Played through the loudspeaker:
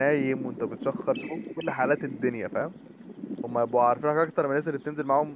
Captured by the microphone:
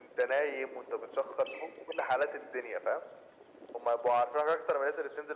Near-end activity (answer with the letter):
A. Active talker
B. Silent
B